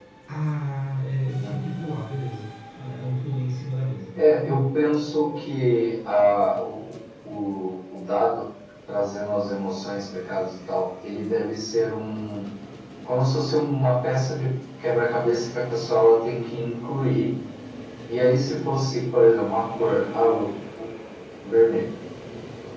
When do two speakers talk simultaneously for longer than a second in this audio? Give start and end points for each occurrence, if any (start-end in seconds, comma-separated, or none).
none